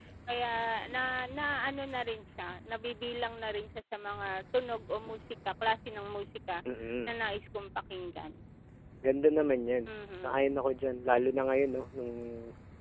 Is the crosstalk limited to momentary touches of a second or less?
Yes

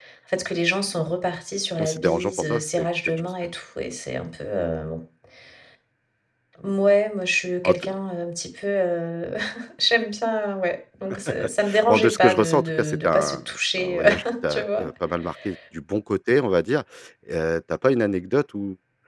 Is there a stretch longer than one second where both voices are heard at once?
Yes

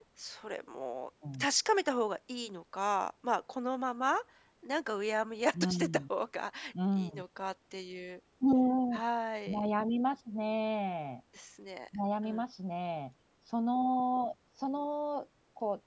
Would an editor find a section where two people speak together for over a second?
No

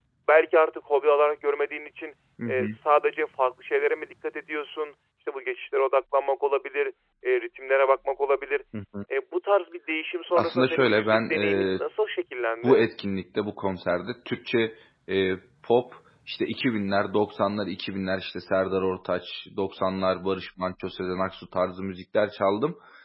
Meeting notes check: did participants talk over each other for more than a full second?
Yes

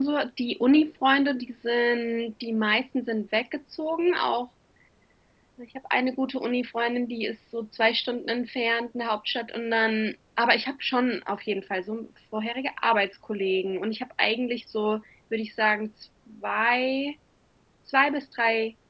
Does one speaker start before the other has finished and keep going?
No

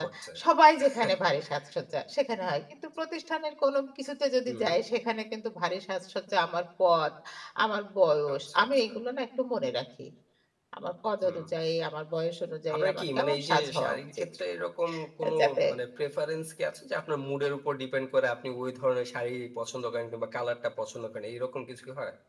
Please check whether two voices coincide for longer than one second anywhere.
Yes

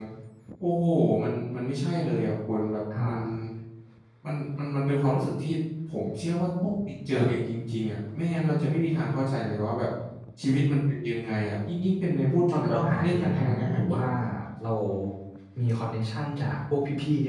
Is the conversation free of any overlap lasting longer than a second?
No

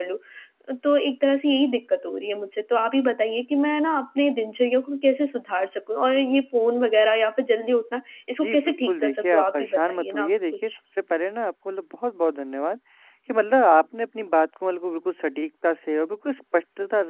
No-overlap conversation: No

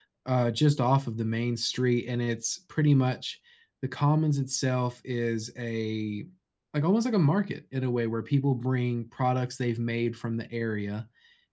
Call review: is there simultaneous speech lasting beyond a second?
No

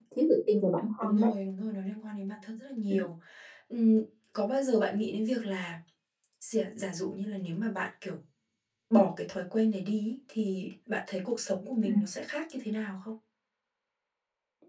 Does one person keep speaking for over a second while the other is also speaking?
No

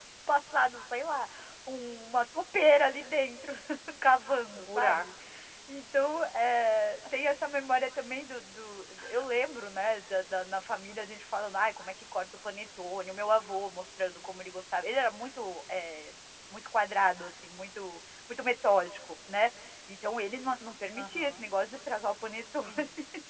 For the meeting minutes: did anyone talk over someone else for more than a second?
No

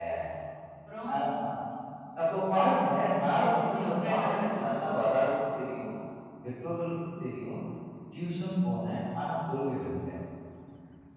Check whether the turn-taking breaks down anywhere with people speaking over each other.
Yes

